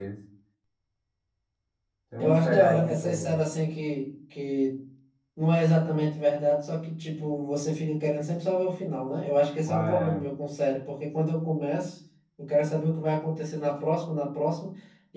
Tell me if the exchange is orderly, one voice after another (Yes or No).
No